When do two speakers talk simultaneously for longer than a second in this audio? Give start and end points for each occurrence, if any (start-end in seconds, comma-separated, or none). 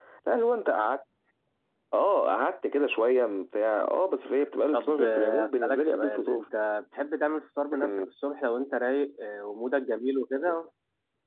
4.7-6.5